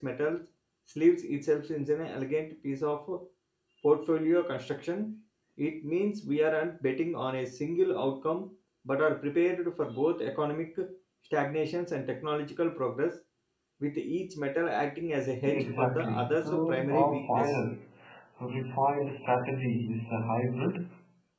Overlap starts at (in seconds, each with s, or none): 15.5 s